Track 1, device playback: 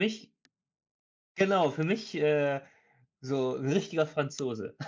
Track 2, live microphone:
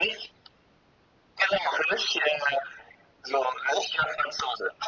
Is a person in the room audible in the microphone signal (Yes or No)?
No